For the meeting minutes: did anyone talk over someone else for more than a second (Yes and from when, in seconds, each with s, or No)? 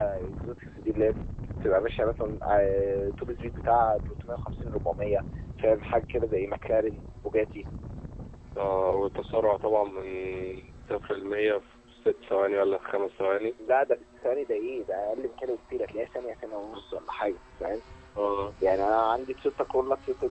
No